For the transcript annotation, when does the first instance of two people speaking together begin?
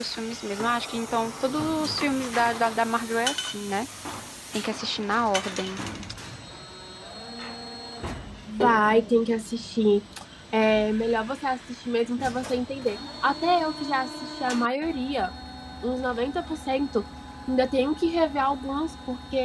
none

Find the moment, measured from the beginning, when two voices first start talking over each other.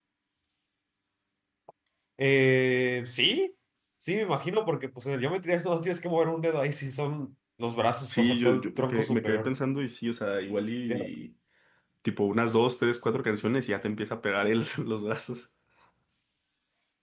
8.1 s

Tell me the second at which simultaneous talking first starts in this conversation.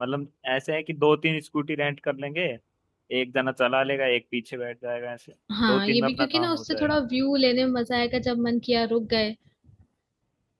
5.5 s

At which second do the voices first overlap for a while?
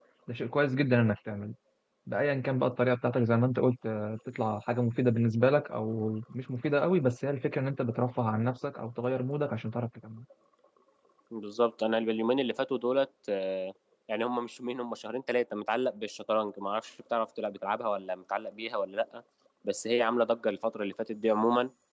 none

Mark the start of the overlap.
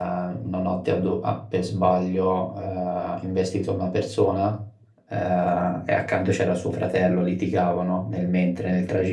none

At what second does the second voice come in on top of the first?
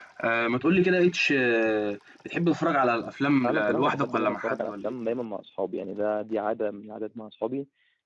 3.4 s

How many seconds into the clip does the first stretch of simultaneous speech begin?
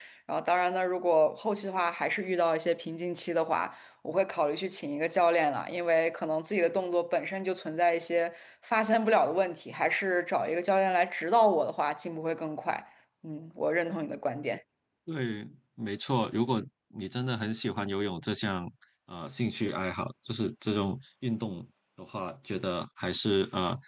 none

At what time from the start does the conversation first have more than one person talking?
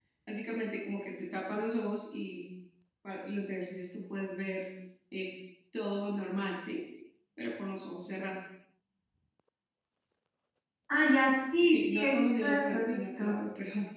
11.7 s

